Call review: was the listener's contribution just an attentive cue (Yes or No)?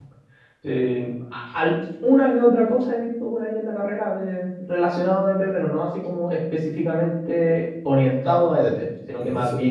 Yes